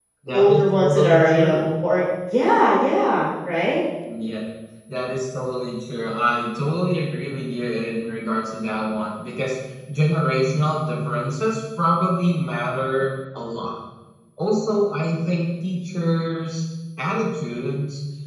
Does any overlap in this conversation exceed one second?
Yes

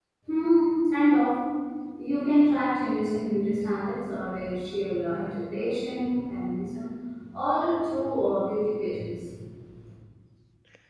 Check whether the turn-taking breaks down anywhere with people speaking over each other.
No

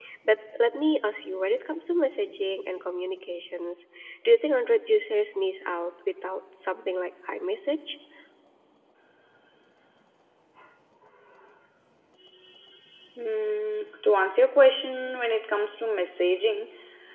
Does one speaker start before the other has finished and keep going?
No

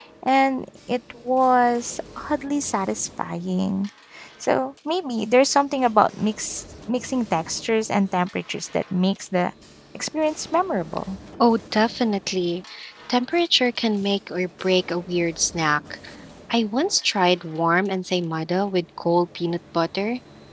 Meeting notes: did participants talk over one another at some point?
No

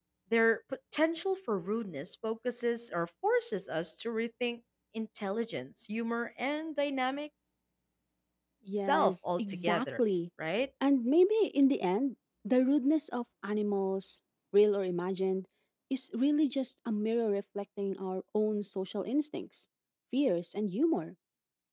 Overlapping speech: Yes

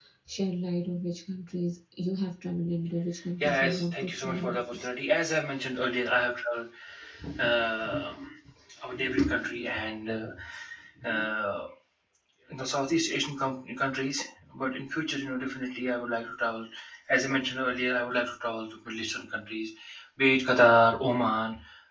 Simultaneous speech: Yes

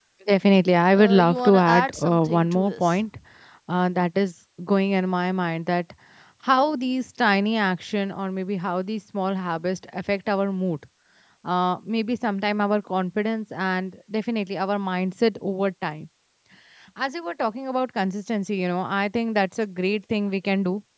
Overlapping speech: Yes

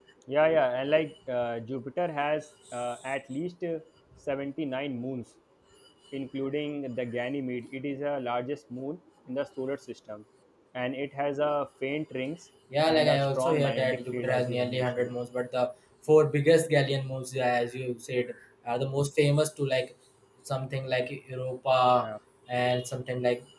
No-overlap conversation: No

